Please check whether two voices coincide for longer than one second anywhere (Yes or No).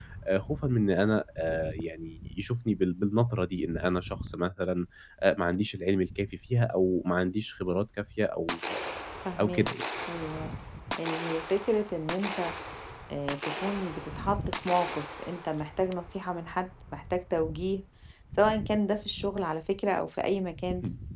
No